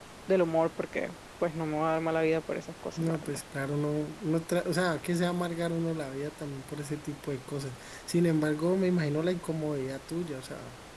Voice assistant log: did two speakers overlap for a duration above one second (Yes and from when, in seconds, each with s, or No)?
No